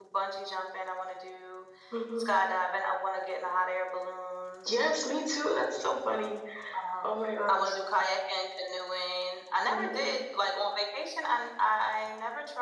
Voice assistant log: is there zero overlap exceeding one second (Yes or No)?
Yes